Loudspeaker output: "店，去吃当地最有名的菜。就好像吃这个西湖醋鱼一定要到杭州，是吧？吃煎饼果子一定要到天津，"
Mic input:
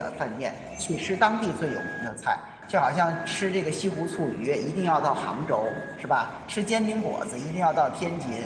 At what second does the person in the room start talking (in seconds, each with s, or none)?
none